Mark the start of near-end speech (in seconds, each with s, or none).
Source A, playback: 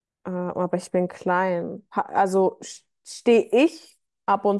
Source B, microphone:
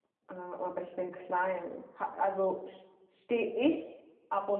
none